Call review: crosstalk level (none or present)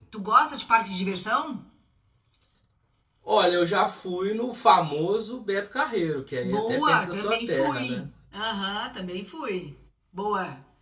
present